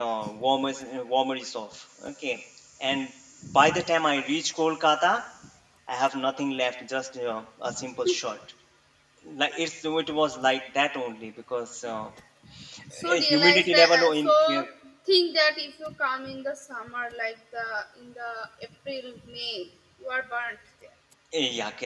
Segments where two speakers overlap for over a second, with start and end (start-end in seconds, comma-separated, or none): 13.1-14.6